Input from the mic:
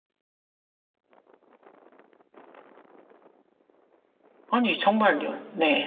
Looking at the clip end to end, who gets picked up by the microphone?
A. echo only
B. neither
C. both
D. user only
D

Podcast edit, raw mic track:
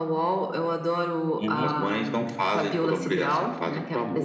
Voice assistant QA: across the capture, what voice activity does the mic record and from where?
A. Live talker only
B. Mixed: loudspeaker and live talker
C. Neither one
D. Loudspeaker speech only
B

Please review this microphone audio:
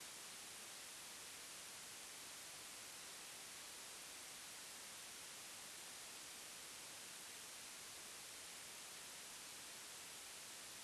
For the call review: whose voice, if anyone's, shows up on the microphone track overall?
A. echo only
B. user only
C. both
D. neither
D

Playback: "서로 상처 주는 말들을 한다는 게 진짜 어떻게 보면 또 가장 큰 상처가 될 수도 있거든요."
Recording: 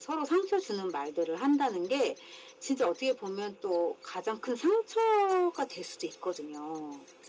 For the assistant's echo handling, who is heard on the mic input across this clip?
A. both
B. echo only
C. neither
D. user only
B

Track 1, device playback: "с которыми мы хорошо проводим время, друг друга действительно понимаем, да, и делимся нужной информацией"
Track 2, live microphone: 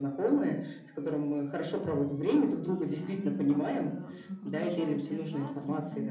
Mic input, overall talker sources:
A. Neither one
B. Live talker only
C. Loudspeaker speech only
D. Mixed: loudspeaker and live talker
D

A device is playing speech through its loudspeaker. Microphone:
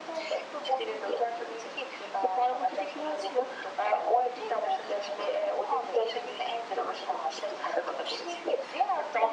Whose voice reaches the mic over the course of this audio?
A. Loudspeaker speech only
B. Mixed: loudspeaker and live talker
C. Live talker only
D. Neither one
A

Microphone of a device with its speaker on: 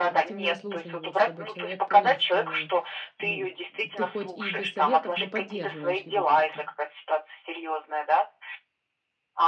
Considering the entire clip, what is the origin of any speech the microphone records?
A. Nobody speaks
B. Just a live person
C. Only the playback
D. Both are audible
D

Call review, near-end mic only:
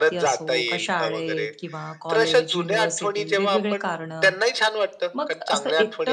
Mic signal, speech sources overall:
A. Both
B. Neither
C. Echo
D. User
A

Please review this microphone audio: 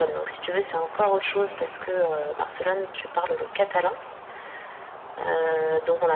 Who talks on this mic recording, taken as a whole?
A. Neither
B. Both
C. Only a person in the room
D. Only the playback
D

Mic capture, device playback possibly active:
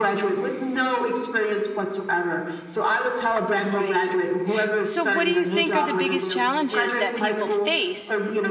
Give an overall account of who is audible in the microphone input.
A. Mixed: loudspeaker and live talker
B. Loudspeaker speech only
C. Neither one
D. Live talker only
A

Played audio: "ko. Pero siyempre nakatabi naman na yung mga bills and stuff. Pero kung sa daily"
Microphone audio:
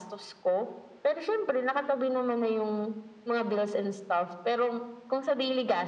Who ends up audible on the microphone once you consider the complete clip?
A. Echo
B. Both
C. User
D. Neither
A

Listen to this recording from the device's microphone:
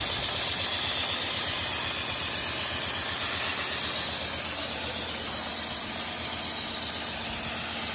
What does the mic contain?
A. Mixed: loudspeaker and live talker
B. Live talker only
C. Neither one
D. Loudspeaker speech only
C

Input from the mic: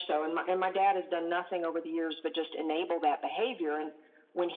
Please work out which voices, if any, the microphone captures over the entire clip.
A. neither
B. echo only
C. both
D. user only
B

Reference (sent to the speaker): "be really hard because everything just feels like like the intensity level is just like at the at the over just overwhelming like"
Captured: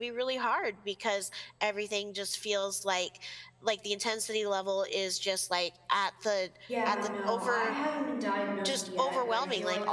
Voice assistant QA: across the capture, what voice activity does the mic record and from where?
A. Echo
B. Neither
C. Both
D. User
C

